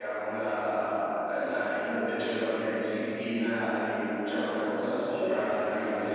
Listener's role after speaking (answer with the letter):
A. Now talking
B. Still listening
B